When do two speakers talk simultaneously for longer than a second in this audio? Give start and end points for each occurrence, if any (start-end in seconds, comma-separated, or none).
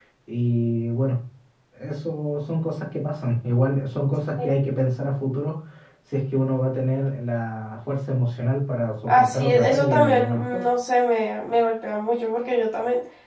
9.1-10.6